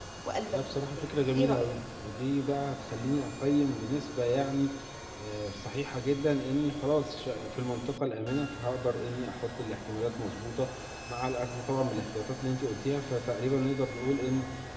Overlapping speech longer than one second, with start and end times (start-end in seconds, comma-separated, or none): 0.5-1.8